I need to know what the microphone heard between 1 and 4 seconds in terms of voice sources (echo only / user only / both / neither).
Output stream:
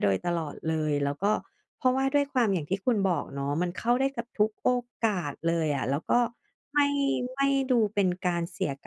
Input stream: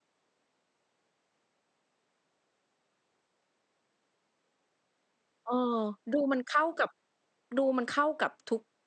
neither